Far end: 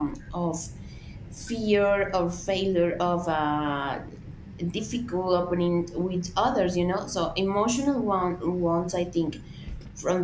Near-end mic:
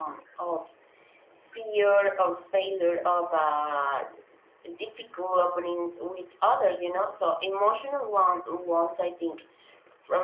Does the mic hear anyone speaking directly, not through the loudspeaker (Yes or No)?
No